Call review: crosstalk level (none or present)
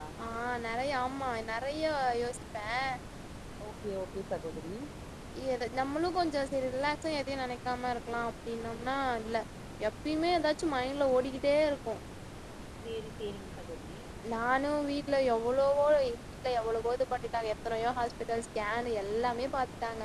none